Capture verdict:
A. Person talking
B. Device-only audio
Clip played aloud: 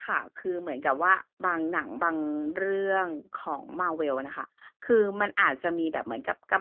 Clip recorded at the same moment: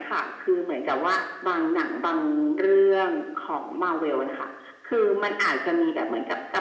B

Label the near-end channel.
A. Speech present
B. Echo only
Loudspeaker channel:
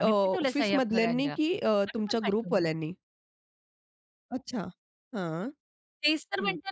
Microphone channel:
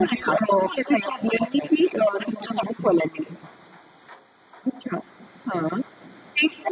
B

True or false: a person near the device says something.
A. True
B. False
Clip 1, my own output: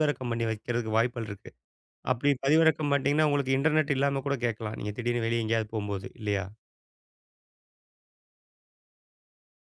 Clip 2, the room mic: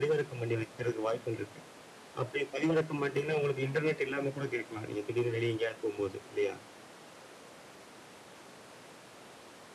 B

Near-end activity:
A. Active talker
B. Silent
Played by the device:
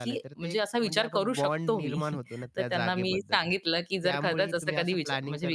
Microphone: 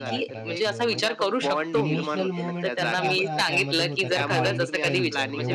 A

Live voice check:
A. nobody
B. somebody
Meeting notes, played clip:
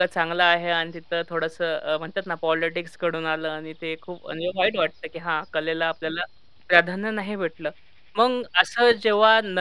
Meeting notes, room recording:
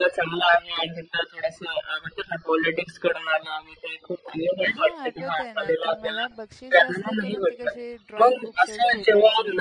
B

